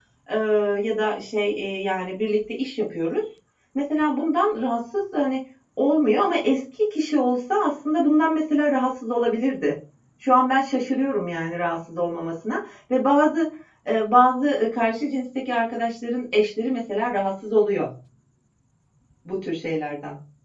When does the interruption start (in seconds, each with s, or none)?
none